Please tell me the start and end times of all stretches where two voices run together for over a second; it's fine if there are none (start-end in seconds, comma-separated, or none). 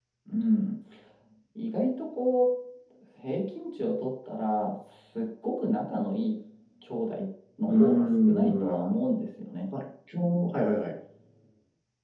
7.7-8.9